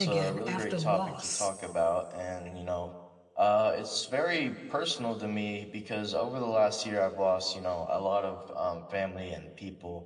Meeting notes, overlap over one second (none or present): present